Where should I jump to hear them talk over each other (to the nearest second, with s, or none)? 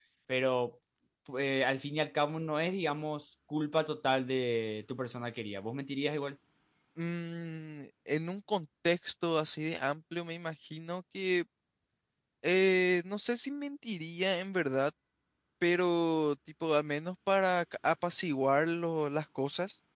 none